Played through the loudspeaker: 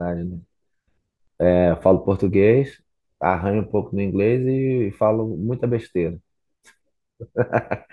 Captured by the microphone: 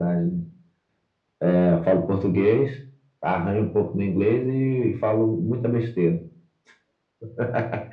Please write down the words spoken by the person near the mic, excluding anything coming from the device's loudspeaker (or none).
none